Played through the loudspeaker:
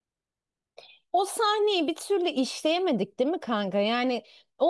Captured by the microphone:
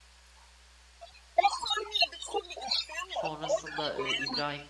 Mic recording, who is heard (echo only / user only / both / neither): both